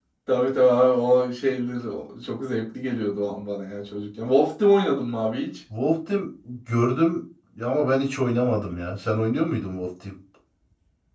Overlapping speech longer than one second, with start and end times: none

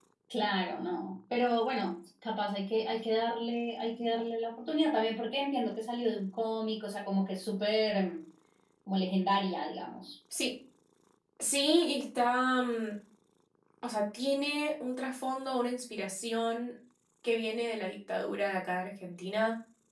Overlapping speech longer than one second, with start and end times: none

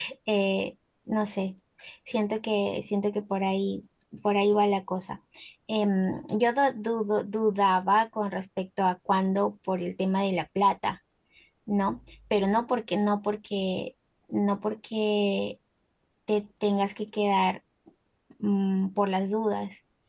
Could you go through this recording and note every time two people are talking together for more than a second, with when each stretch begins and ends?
none

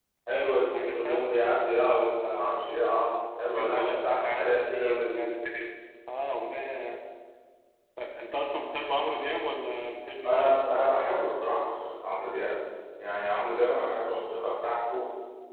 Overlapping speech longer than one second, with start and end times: 3.5-5.4

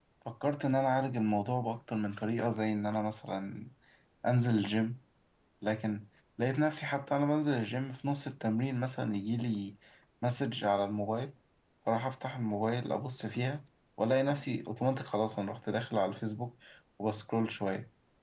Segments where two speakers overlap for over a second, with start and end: none

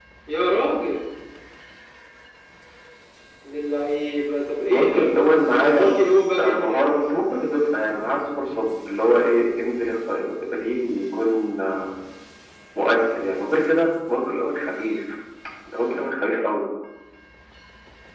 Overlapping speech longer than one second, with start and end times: none

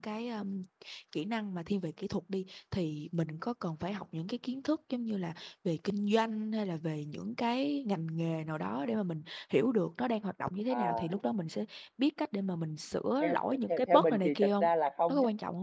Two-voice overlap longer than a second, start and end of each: 13.2-14.7

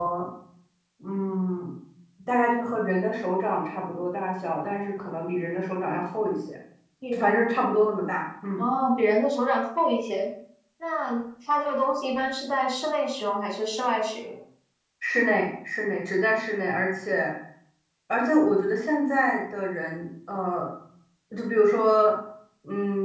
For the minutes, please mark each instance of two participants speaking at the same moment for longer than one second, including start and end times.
none

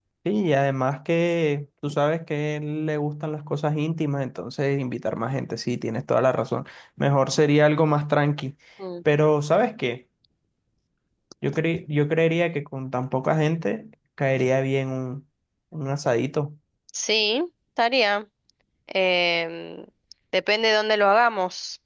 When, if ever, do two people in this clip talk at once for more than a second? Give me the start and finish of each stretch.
none

